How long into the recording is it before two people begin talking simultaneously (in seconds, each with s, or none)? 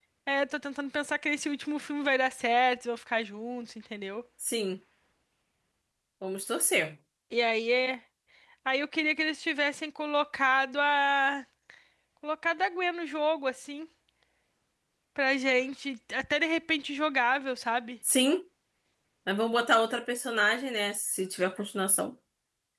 none